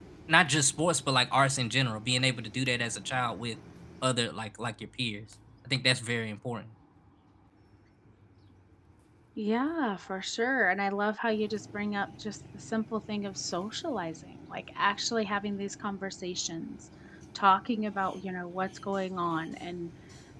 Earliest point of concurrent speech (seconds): none

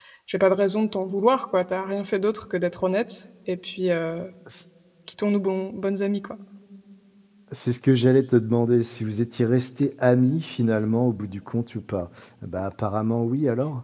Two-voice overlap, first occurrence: none

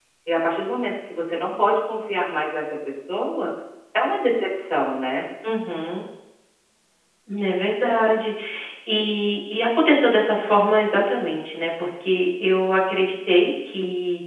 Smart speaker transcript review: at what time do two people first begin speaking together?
none

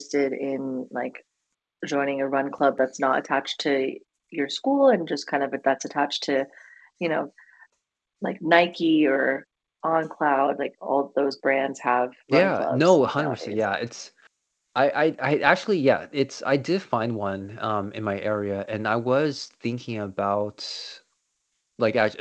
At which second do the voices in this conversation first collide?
12.3 s

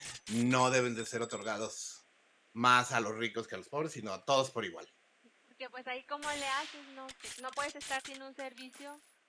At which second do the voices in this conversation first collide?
none

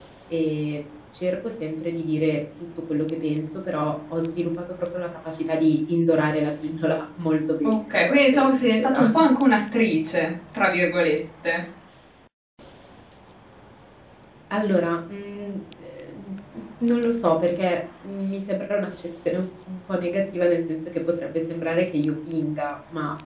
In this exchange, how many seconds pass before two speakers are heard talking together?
7.6 s

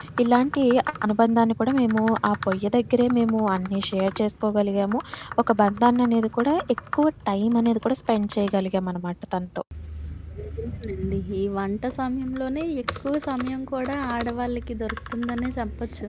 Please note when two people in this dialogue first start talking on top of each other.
none

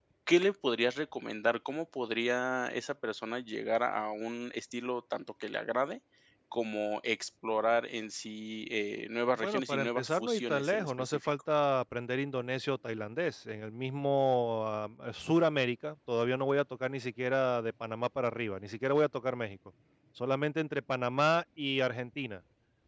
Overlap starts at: 9.4 s

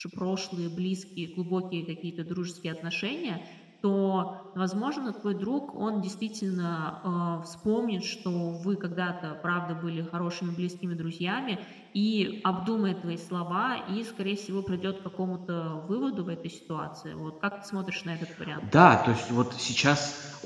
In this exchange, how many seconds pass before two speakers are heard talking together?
none

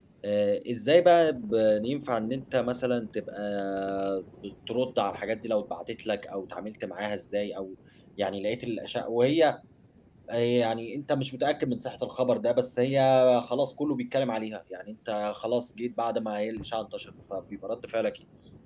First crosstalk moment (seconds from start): none

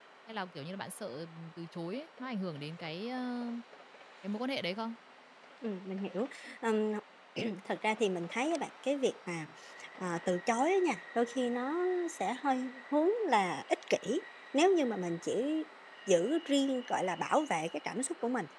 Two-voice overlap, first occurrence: none

